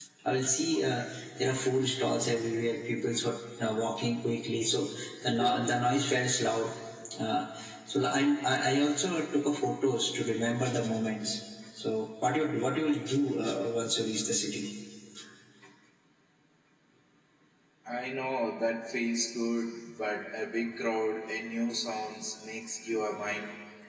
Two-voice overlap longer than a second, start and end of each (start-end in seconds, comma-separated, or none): none